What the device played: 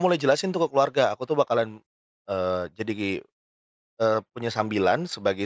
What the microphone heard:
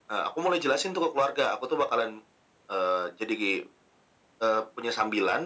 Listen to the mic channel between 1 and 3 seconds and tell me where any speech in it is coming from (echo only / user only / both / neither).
echo only